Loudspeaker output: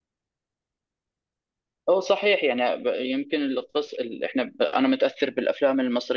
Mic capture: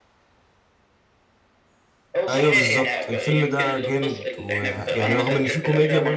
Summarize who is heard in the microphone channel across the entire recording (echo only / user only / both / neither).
both